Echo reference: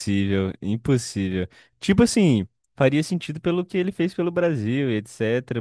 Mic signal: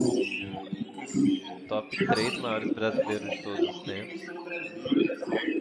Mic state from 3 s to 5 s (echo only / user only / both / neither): both